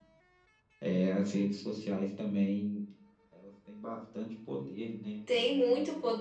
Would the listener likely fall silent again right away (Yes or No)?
No